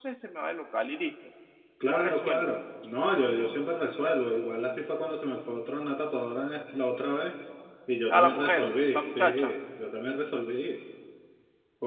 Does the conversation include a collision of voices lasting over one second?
Yes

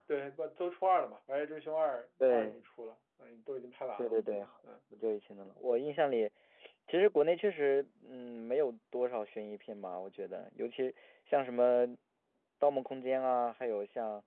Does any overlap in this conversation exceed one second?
No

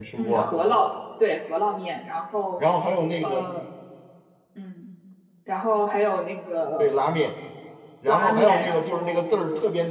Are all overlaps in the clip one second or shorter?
No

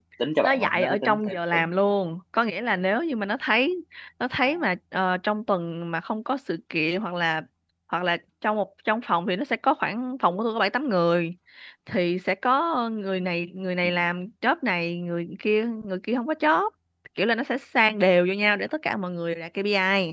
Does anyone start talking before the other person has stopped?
Yes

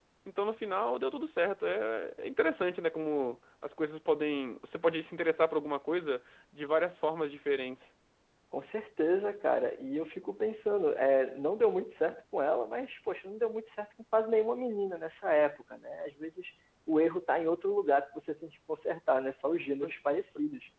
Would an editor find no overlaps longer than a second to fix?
Yes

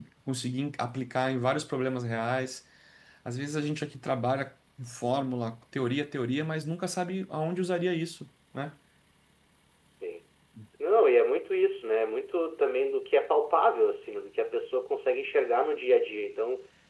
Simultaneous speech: No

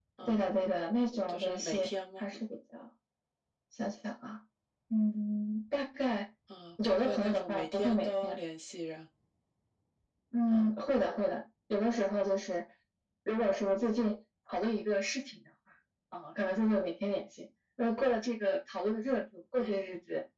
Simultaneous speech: Yes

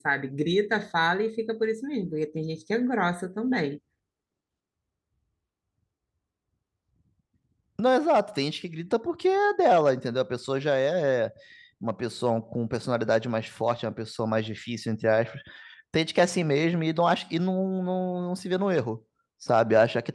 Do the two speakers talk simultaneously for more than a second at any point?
No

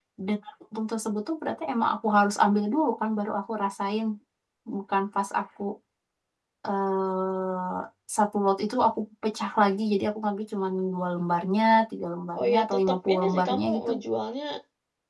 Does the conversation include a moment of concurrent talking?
Yes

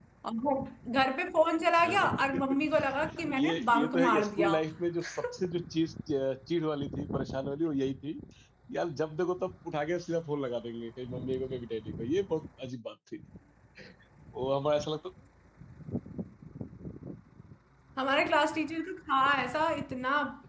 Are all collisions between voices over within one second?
No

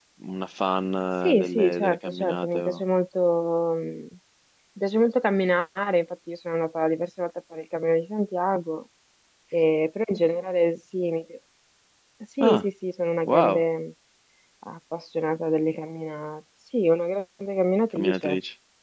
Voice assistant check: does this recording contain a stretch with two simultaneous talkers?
Yes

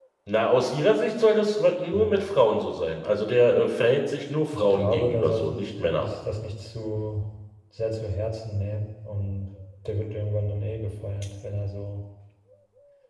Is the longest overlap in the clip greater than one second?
Yes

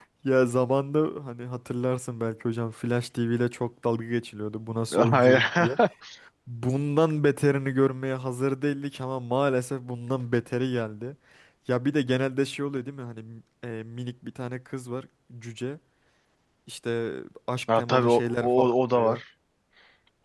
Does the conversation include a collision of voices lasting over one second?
Yes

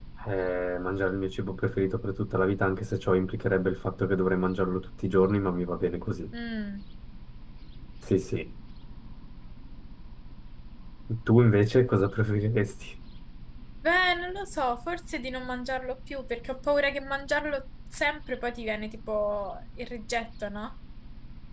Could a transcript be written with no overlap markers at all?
Yes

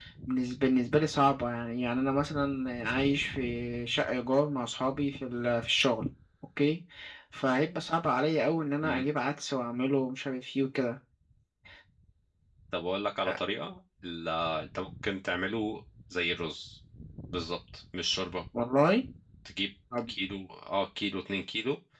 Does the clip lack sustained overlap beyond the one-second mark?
Yes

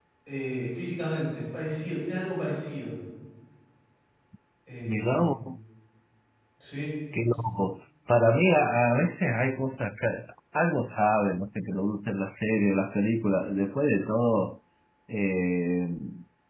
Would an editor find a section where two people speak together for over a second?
No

